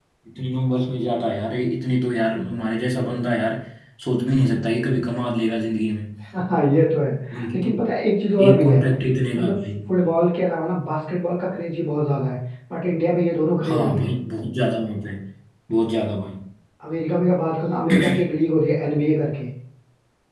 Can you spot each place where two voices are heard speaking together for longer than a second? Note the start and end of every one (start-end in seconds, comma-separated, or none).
none